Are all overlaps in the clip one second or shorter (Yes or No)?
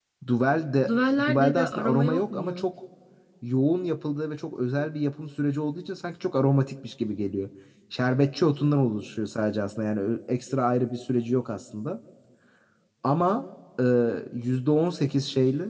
No